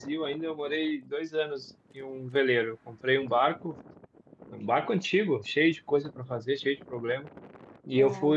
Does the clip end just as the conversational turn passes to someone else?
No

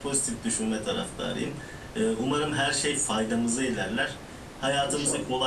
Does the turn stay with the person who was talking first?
Yes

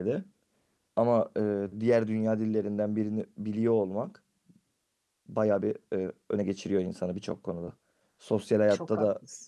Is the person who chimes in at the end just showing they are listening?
Yes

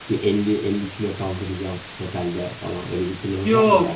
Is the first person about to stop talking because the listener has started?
Yes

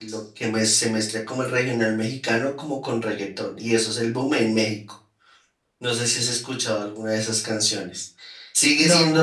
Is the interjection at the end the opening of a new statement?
No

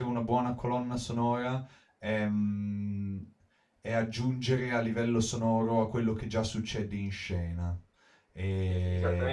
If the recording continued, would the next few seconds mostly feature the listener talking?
Yes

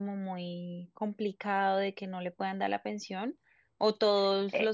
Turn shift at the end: No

